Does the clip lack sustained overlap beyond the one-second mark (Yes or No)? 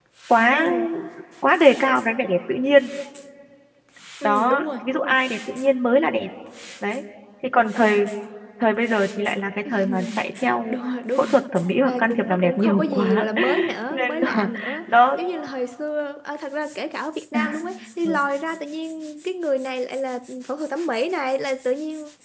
No